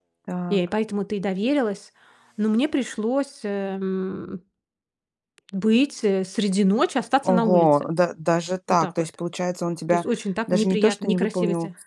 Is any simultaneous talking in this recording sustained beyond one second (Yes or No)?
Yes